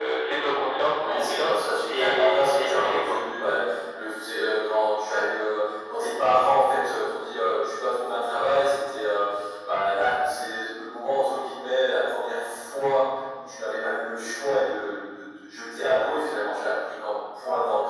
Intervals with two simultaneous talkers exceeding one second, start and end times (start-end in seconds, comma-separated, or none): 1.0-3.2